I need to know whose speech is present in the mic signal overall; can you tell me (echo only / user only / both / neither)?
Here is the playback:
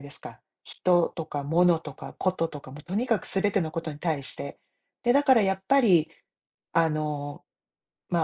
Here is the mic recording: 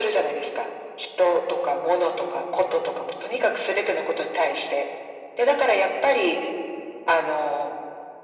echo only